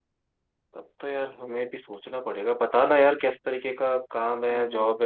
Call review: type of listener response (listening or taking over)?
listening